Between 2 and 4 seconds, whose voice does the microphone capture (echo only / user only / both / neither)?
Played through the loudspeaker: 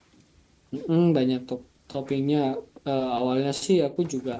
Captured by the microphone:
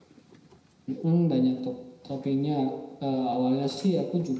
echo only